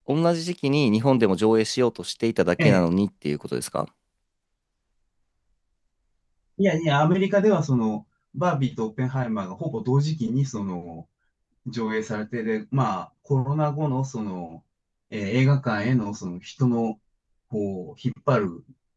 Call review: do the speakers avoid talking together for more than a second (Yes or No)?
Yes